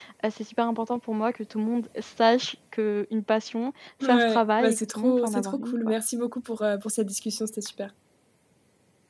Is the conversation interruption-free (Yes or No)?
No